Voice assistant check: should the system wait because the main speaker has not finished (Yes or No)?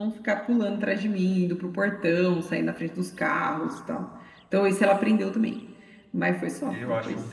No